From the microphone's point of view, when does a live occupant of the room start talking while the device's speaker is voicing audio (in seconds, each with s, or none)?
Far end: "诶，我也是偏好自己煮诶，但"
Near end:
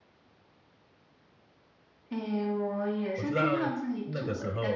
3.1 s